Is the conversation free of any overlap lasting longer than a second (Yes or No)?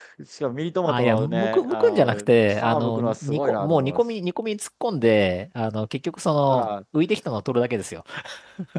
No